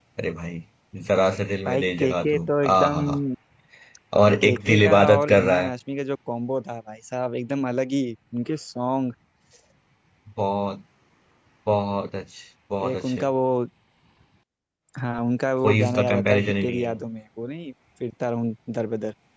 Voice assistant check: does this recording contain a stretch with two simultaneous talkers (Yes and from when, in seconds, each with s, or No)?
Yes, from 1.7 s